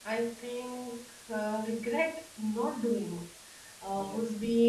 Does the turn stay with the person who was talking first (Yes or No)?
Yes